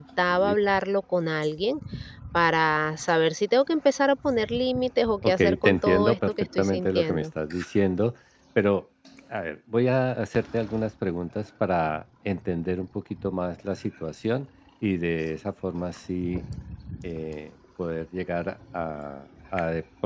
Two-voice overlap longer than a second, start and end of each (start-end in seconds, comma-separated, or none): 5.3-7.3